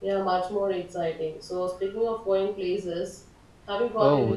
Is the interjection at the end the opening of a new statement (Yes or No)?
Yes